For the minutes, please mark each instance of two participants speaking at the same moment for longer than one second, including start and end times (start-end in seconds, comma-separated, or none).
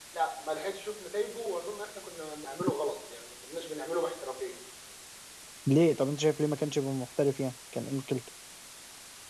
none